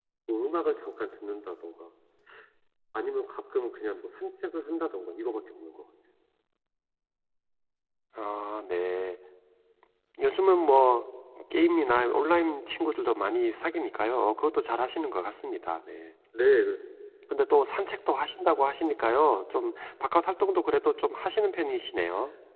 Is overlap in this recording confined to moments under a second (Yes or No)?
Yes